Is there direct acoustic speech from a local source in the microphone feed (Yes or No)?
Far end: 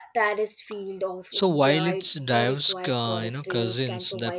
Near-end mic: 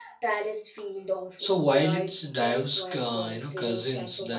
No